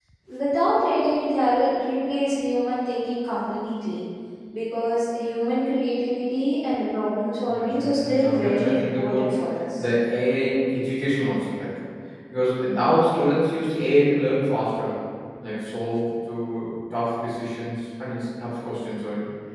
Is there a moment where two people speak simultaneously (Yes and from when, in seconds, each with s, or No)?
Yes, from 7.5 s